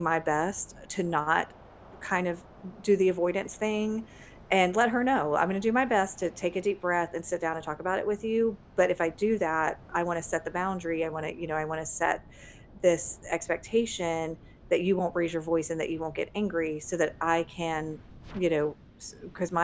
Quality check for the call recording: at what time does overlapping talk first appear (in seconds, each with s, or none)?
none